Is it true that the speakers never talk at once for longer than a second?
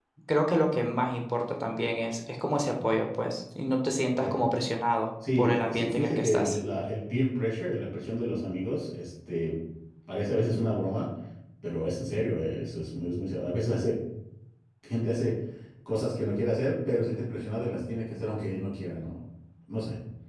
No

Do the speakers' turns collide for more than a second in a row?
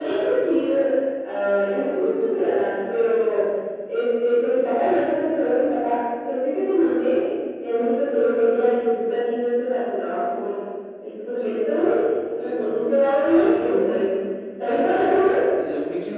Yes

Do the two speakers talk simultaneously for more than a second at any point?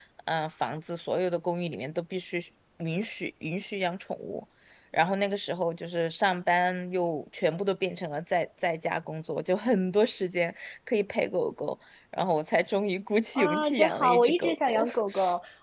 Yes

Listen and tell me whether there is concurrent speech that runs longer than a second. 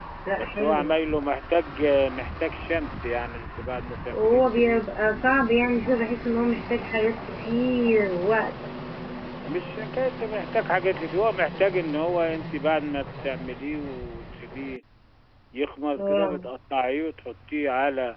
Yes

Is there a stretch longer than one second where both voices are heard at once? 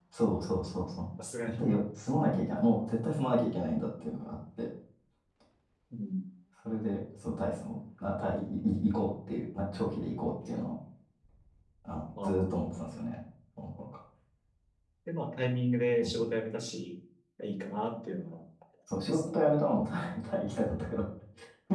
No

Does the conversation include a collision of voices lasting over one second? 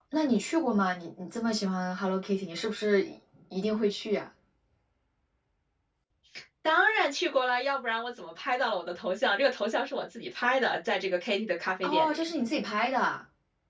No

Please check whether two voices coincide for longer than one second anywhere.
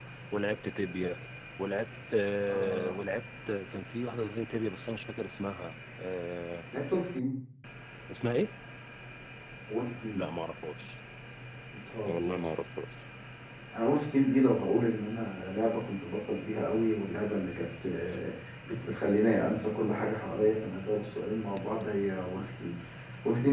No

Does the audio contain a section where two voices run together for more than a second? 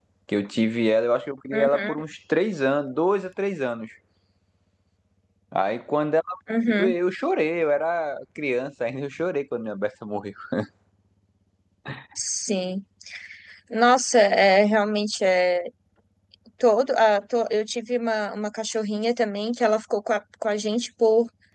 No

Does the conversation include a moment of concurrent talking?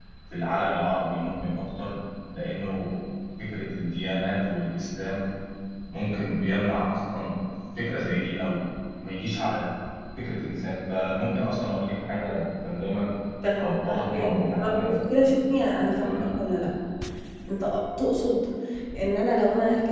Yes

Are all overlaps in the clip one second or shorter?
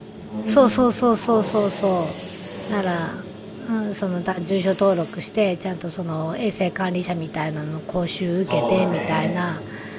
No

